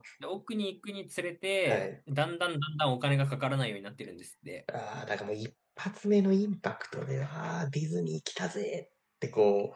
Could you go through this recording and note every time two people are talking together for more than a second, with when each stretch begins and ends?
none

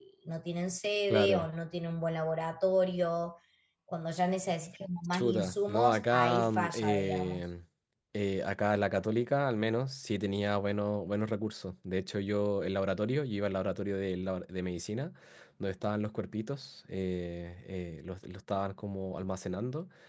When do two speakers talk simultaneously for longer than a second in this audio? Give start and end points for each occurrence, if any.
5.1-7.4

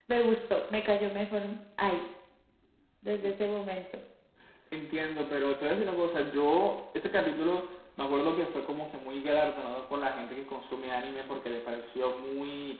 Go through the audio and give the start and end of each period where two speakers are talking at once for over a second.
none

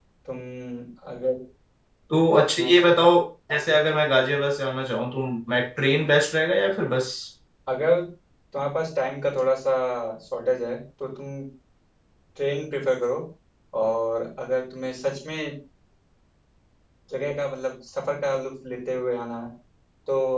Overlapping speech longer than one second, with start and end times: none

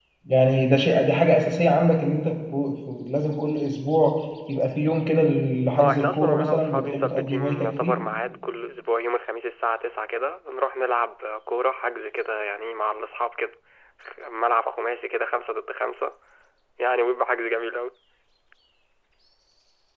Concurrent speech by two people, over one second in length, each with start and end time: 5.8-8.0

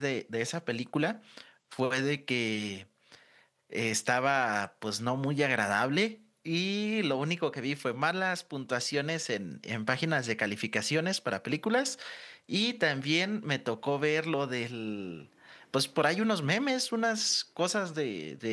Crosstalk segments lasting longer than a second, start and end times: none

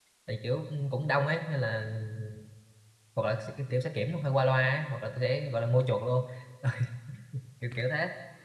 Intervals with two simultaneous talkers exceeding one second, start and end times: none

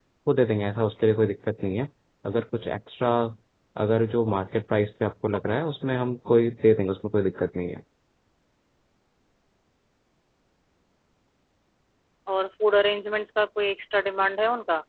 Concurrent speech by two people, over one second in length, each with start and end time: none

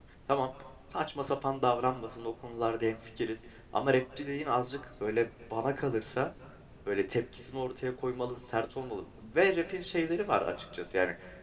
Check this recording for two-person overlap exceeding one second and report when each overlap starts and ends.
none

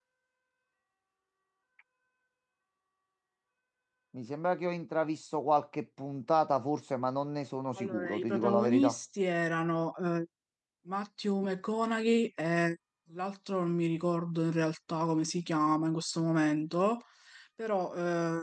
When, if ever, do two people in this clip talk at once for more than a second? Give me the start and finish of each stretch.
7.8-9.0

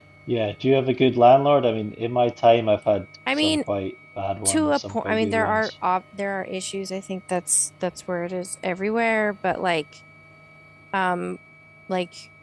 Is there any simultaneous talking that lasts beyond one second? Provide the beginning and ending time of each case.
4.4-5.7

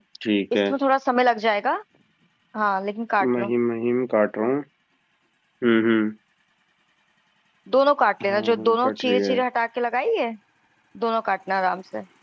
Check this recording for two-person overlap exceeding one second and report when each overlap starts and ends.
8.2-9.4

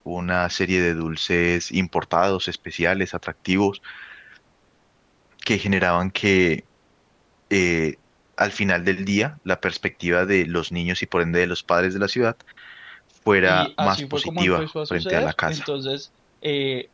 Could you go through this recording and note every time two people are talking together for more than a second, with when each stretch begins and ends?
13.4-15.7

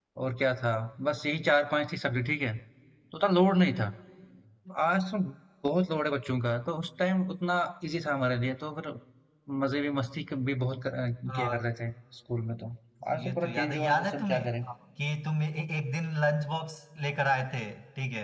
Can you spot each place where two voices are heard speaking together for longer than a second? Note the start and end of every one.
13.2-14.4

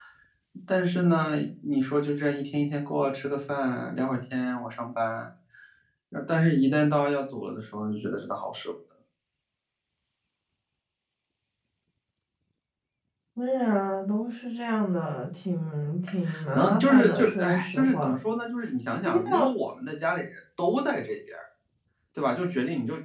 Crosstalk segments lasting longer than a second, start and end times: 16.5-18.1

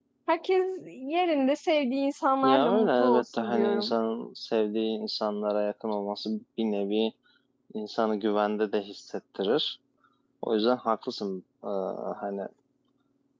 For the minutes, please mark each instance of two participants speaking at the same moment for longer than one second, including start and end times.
2.4-3.9

